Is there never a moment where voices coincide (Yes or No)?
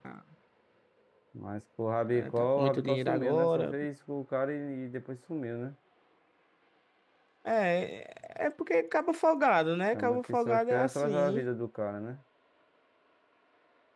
No